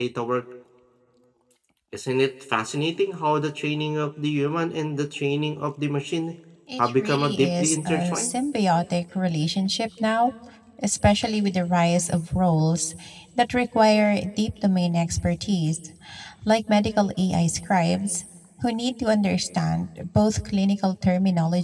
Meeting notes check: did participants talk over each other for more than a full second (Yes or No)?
Yes